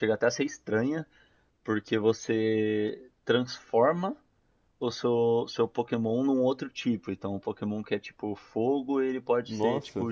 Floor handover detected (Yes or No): No